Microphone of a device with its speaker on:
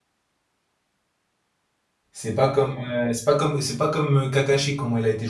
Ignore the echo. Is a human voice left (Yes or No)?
Yes